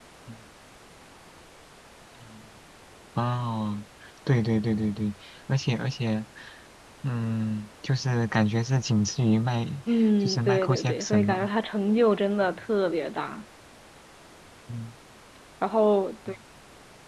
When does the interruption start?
10.2 s

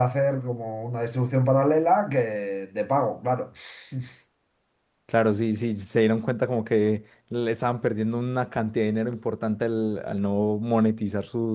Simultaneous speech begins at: none

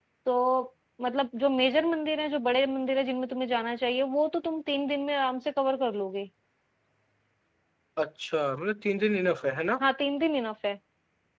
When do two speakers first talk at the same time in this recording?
none

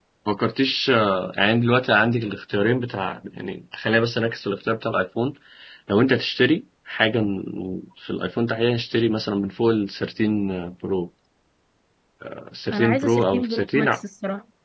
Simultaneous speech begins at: 12.7 s

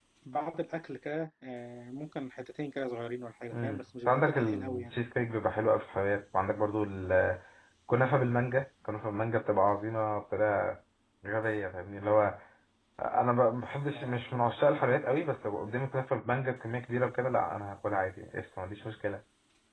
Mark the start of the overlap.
3.5 s

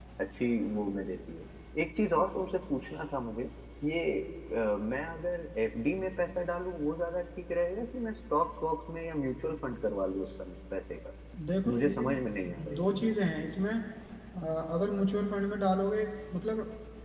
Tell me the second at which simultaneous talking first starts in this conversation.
11.7 s

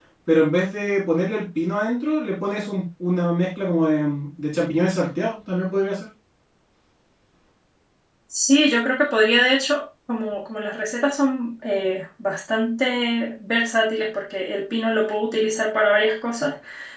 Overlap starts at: none

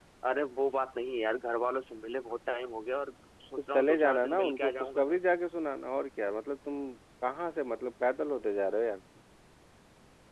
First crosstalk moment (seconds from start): 3.6 s

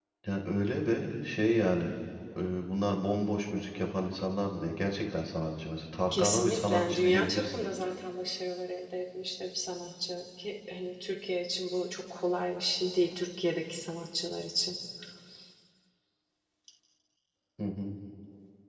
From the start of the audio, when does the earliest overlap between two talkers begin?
6.1 s

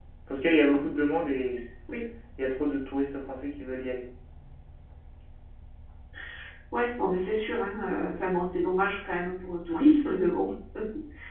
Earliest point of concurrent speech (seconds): none

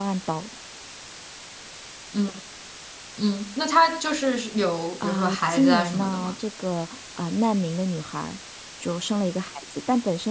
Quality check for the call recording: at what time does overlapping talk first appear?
5.0 s

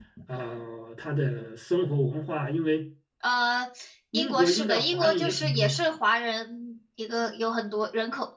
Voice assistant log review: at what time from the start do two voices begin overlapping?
4.1 s

